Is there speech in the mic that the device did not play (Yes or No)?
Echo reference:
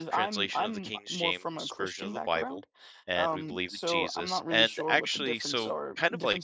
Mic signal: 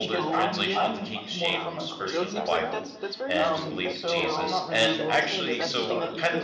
Yes